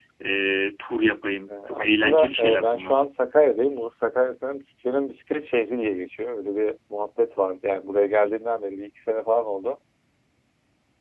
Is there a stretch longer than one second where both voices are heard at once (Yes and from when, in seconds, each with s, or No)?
Yes, from 1.5 s